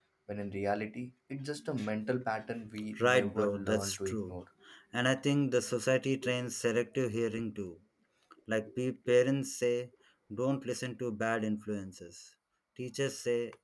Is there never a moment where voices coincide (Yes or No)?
No